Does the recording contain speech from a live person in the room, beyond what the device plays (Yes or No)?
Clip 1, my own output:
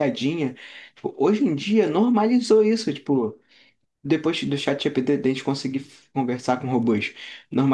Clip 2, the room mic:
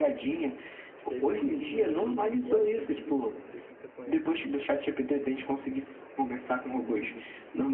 Yes